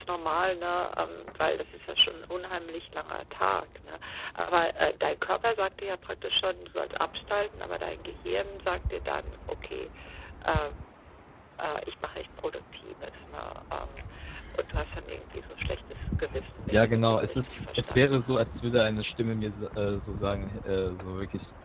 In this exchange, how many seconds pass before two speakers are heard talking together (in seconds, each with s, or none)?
16.7 s